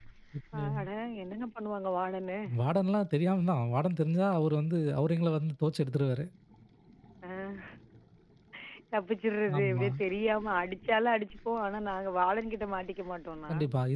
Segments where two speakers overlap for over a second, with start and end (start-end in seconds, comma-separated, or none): none